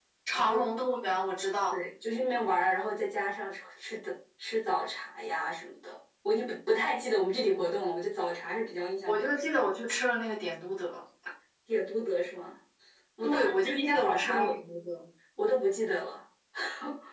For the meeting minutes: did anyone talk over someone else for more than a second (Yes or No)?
Yes